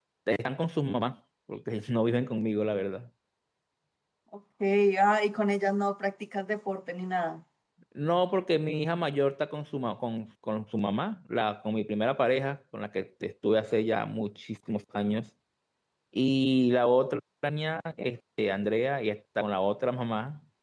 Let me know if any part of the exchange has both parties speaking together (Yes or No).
No